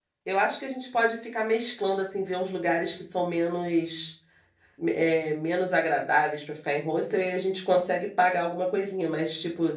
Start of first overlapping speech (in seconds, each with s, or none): none